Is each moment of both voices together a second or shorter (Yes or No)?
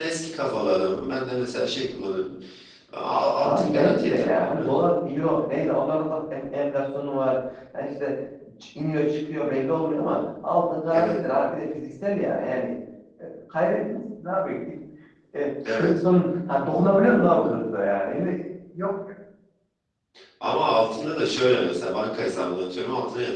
No